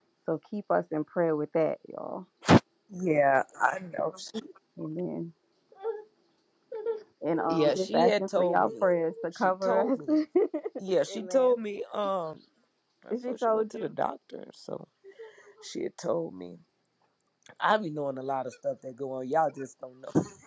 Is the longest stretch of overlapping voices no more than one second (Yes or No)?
No